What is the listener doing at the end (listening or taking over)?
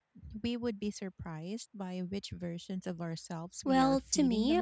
taking over